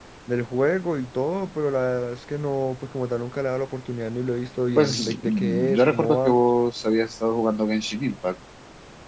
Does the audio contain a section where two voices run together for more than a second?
Yes, from 4.8 s

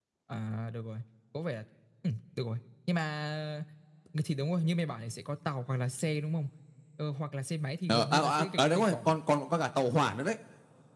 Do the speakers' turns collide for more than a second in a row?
Yes, from 7.9 s

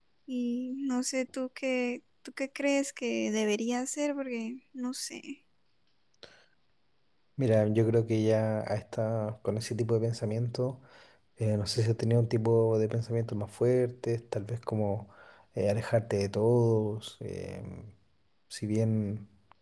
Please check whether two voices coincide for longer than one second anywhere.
No

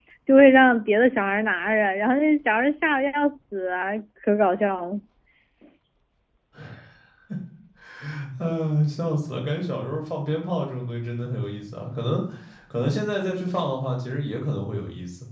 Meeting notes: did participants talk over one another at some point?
No

